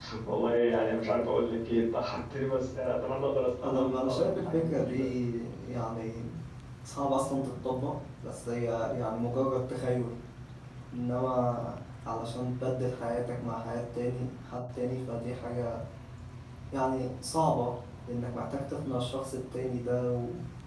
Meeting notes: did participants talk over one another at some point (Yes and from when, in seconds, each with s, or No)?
Yes, from 3.6 s